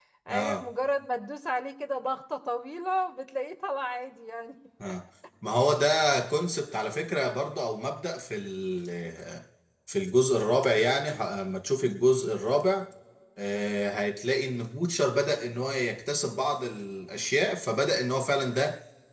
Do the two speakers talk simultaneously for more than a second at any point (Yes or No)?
No